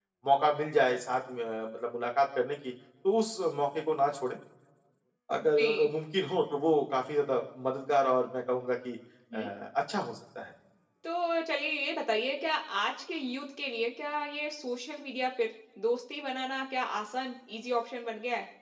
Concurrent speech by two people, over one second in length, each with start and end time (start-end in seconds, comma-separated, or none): none